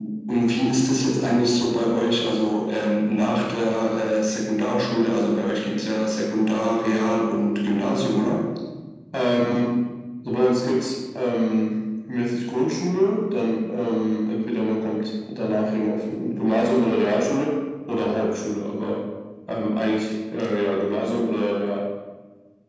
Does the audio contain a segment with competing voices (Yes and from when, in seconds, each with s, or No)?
No